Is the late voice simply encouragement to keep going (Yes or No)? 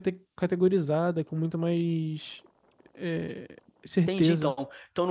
No